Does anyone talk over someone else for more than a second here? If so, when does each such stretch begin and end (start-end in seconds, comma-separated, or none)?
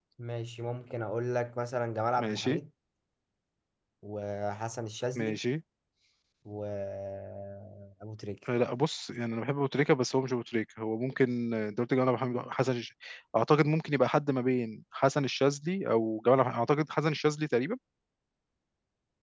none